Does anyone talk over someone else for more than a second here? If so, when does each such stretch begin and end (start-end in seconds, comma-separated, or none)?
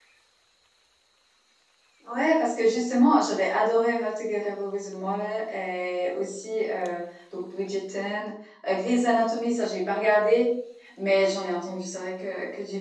none